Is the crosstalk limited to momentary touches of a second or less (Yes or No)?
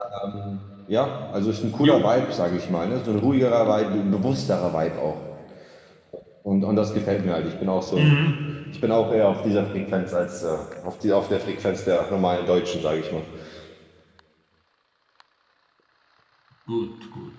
Yes